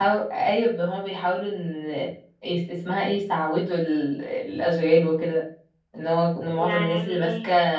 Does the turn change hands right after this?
No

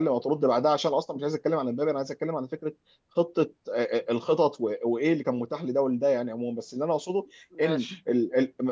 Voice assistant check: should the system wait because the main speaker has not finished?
Yes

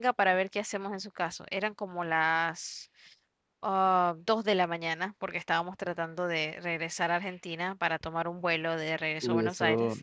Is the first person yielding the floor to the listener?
Yes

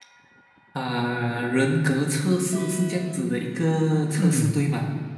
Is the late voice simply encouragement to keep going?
No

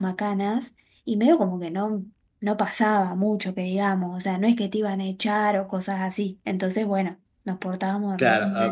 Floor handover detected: Yes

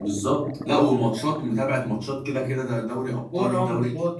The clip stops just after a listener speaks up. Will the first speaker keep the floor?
No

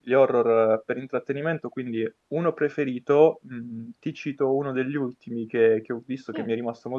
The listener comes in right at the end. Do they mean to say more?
No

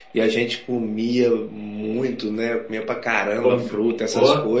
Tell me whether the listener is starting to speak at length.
No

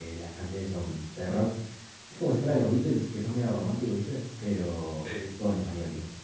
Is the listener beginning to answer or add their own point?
No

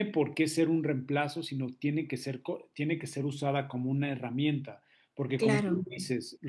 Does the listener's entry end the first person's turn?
No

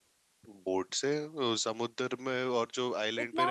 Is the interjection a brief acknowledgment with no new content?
No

